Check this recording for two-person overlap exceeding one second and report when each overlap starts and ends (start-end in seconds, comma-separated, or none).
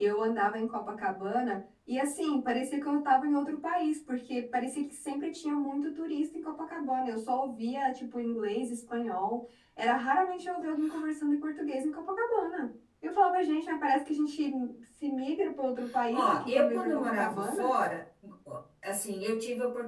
16.1-17.7